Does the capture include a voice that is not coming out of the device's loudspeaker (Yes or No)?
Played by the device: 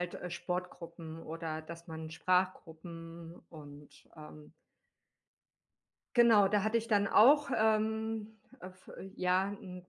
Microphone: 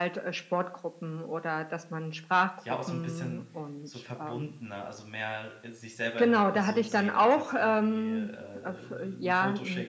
Yes